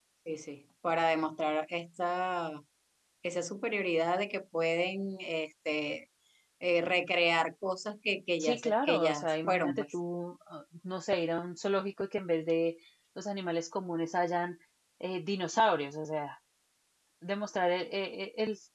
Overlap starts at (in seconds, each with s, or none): 8.4 s